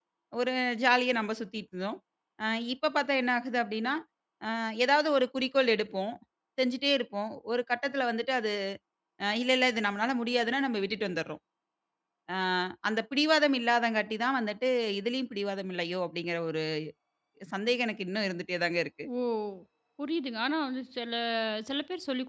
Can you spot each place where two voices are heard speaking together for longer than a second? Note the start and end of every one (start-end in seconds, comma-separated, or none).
none